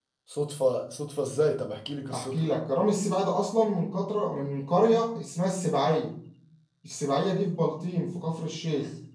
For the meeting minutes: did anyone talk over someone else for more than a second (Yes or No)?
No